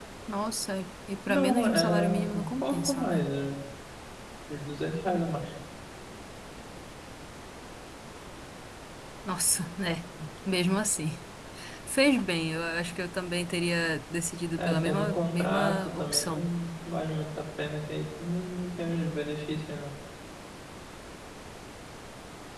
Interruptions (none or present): present